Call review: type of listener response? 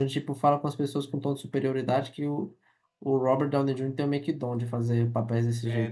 taking over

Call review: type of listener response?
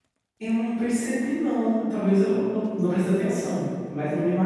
listening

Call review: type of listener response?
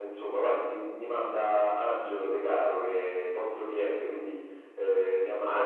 taking over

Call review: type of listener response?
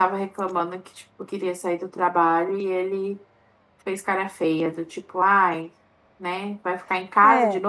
listening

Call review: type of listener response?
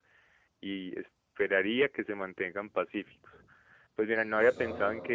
listening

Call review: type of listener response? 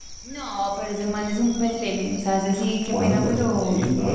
taking over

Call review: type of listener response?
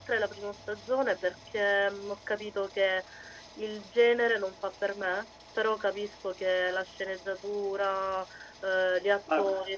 taking over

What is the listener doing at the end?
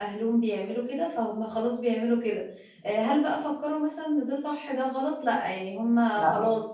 listening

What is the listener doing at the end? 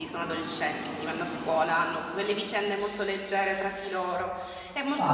taking over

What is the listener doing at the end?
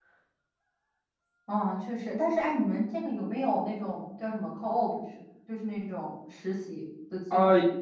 taking over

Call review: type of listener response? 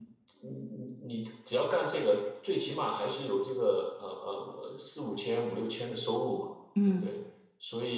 listening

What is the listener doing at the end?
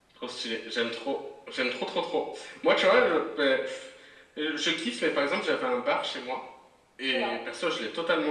listening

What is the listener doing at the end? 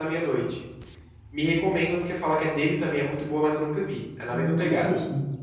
taking over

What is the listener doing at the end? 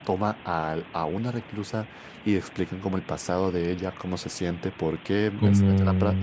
listening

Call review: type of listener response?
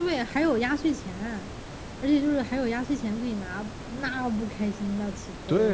taking over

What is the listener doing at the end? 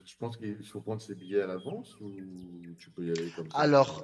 taking over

